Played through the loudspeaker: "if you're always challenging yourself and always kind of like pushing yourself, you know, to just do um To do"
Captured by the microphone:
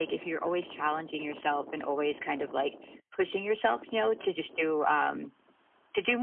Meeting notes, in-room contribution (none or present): none